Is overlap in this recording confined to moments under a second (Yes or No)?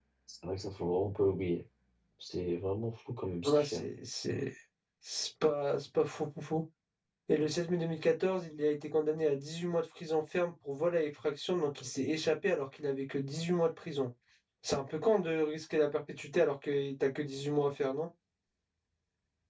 Yes